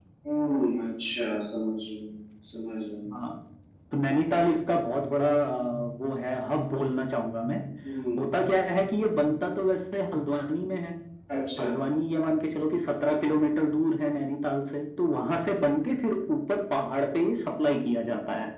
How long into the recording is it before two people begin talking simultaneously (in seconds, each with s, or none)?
none